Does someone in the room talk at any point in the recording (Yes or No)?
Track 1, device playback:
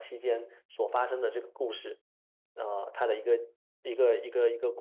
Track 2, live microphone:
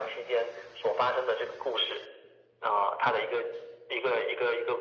No